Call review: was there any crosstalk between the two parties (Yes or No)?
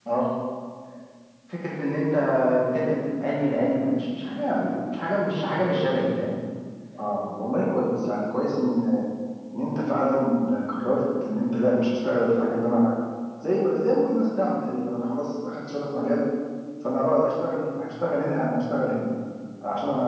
No